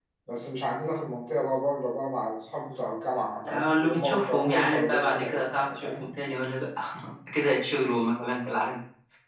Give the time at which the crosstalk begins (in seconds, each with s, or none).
3.4 s